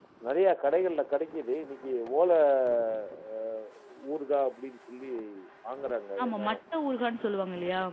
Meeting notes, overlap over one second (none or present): none